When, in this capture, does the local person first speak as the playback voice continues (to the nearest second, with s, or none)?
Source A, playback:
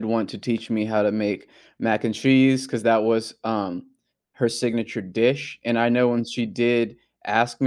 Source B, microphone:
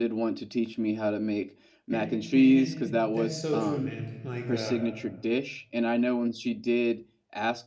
2 s